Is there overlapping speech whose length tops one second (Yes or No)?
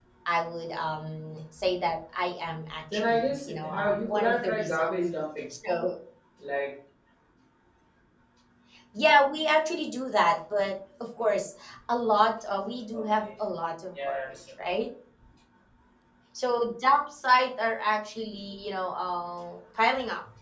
Yes